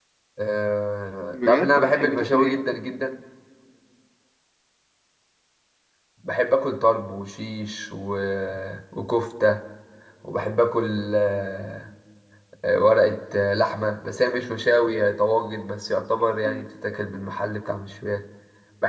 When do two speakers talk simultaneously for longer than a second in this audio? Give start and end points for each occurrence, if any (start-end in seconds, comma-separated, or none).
1.3-2.5